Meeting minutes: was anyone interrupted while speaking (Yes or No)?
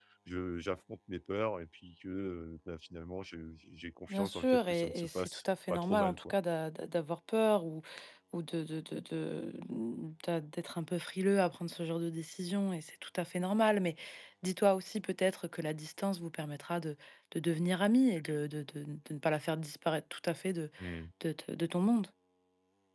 Yes